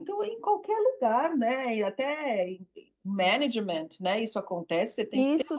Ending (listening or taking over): taking over